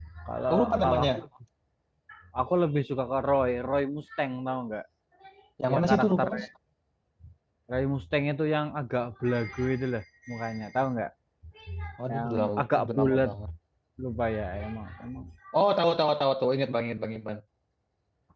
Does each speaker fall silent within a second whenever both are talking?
No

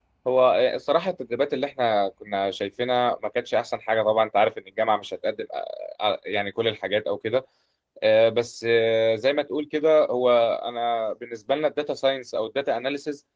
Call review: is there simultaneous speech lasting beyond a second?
No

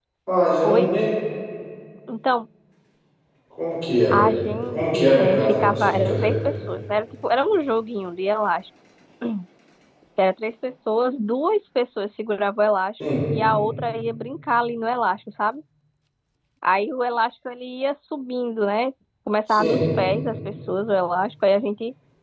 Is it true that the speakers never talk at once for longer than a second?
No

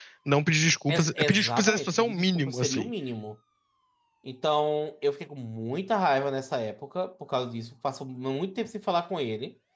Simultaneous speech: Yes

